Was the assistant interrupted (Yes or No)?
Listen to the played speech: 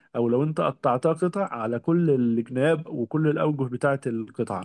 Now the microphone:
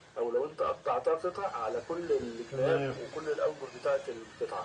Yes